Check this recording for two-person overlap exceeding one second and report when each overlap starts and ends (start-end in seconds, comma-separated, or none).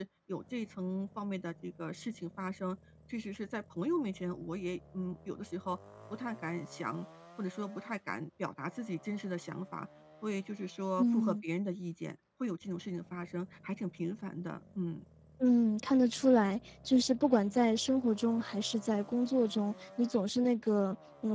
none